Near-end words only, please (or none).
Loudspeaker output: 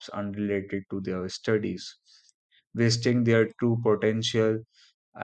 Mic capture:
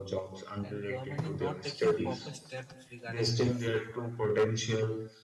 and government is not taking proper steps regarding this